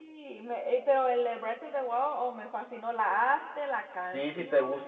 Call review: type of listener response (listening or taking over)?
taking over